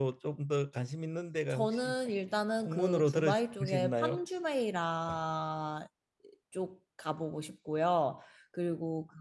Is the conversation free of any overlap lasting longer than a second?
No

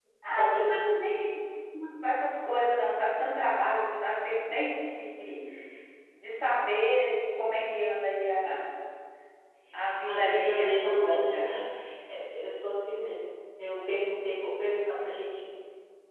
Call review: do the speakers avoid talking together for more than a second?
No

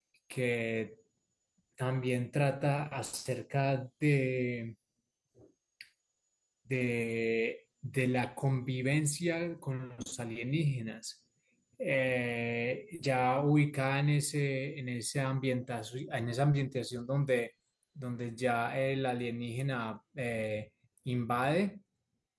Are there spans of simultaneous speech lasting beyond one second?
No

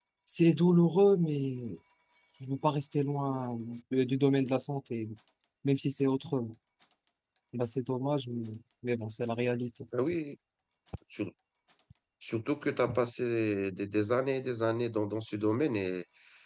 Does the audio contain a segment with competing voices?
No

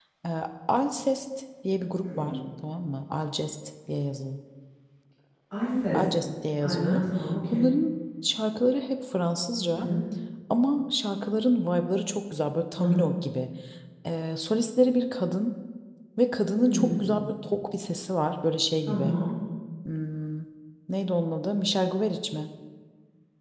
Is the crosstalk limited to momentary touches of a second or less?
Yes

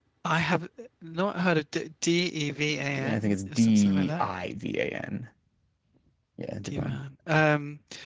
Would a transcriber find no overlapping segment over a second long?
No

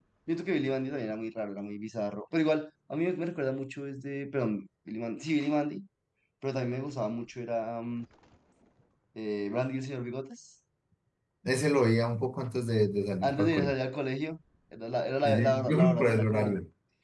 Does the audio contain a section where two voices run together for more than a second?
Yes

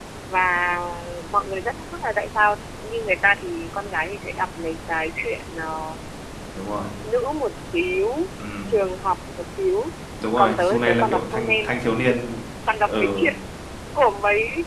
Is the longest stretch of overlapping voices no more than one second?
No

